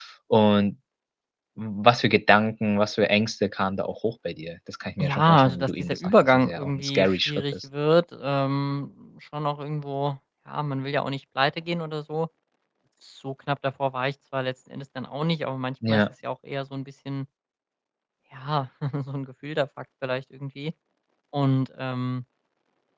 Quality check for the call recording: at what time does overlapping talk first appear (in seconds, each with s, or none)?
5.0 s